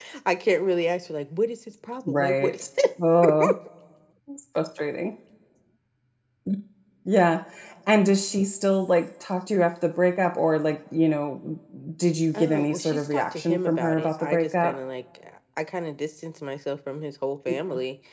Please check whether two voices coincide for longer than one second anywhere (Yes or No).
Yes